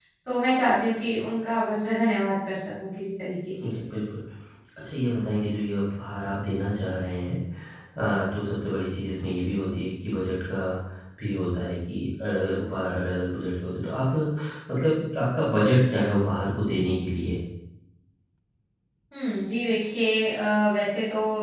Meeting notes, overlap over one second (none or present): none